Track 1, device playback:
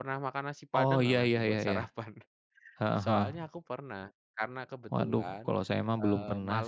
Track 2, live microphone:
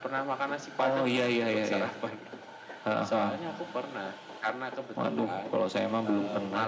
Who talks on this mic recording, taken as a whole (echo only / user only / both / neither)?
echo only